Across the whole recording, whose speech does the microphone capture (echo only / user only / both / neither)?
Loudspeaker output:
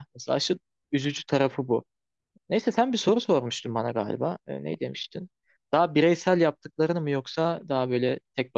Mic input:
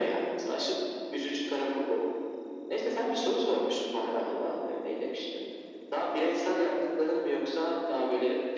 echo only